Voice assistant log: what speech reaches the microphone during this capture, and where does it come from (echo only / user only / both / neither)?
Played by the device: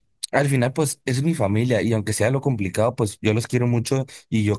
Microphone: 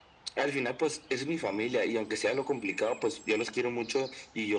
echo only